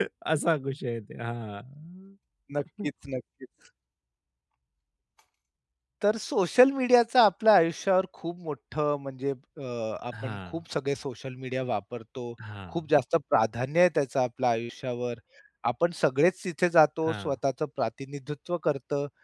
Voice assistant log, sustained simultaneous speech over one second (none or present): none